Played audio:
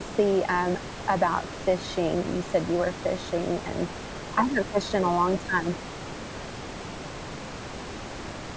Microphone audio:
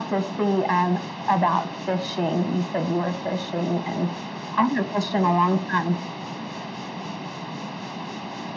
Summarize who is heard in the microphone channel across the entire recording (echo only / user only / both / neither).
echo only